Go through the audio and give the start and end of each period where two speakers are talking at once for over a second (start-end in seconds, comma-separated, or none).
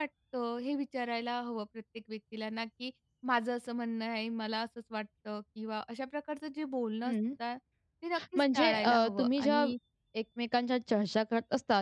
8.4-9.7